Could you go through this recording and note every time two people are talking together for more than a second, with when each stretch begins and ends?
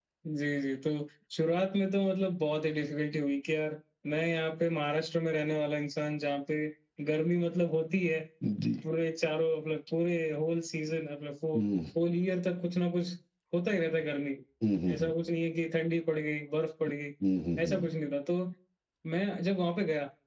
none

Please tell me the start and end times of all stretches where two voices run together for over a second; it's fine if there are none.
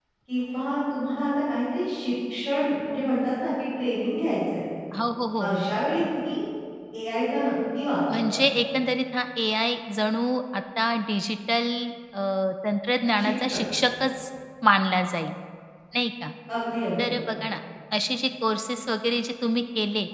none

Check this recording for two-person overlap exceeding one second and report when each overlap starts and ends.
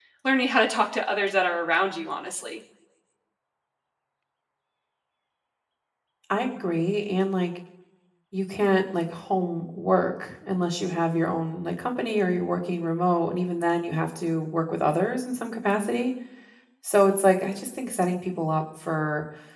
none

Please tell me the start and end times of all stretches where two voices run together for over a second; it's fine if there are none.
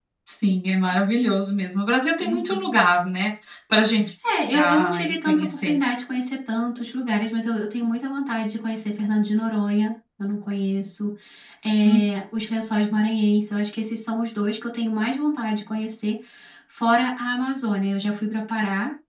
4.5-5.7

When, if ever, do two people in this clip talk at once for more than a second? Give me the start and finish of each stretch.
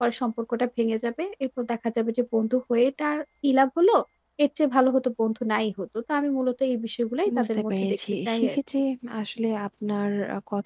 7.4-8.6

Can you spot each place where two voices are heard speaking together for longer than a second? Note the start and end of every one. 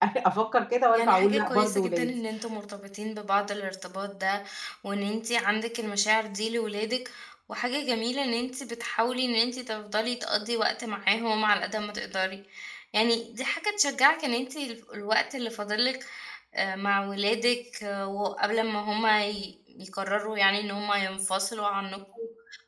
0.9-2.2

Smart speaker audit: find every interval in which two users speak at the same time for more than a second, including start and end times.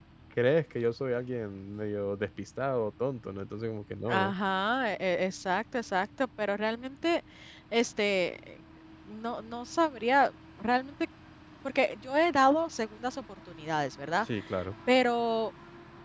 none

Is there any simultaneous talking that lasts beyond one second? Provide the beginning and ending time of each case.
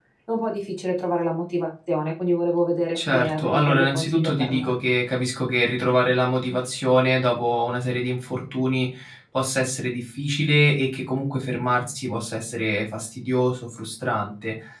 3.0-4.7

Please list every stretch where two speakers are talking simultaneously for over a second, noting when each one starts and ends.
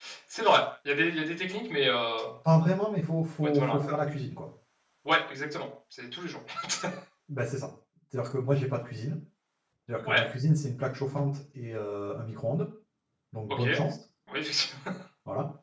none

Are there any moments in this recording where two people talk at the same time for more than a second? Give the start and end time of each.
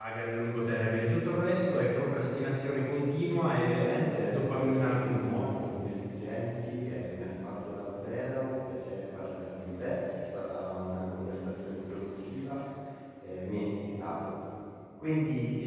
3.3-5.5

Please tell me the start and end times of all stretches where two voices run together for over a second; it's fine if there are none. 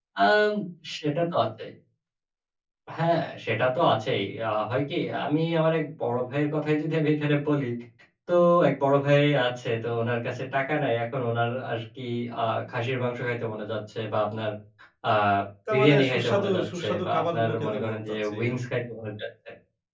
15.7-18.6

